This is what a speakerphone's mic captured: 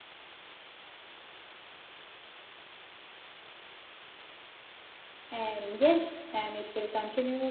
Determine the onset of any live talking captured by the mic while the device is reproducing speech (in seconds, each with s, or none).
5.3 s